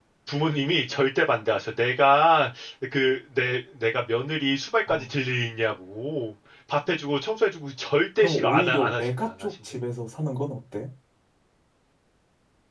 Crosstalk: present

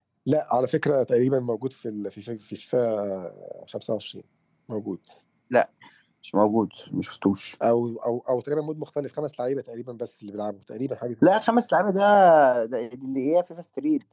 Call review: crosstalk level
none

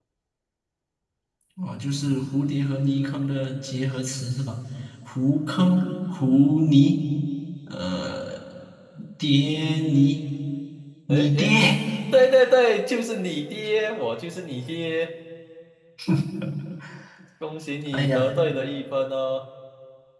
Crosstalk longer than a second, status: none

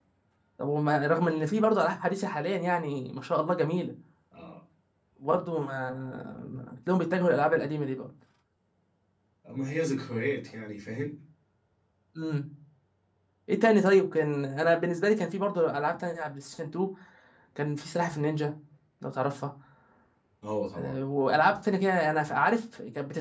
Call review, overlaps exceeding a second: none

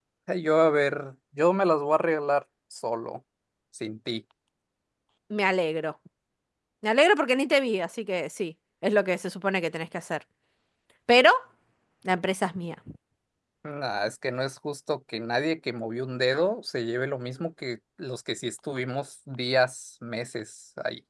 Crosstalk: none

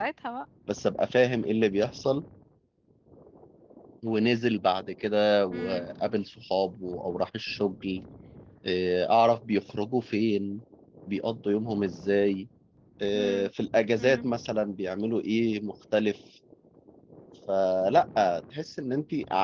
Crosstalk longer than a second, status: none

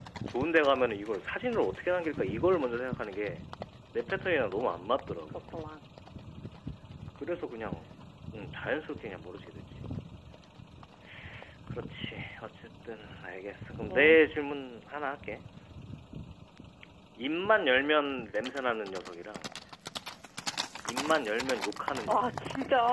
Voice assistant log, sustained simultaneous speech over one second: none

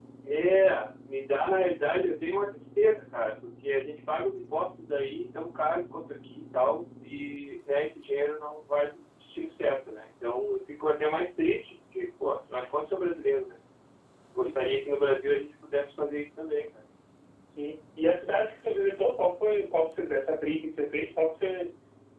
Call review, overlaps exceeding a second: none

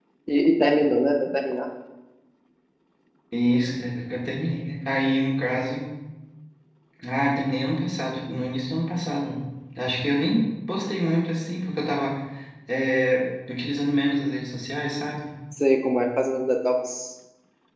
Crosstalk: none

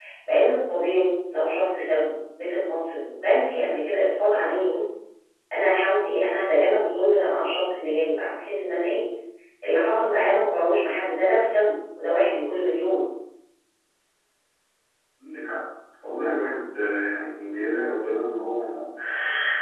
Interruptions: none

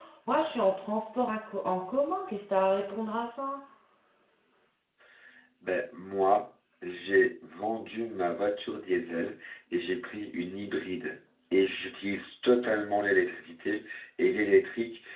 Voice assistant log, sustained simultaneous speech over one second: none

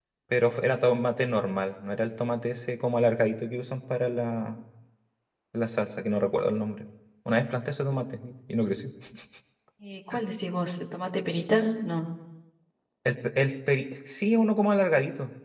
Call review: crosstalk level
none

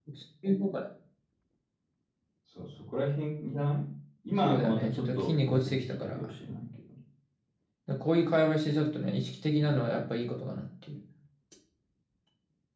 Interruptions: present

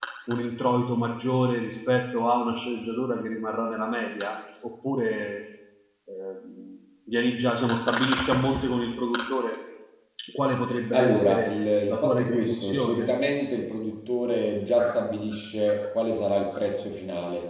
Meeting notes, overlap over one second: present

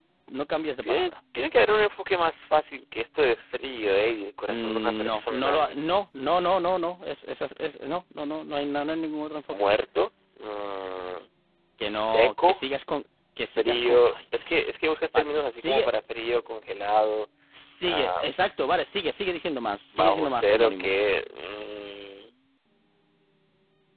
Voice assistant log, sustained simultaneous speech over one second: present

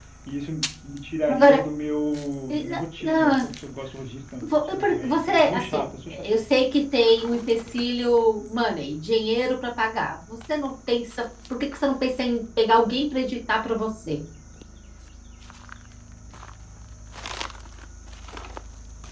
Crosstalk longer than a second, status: present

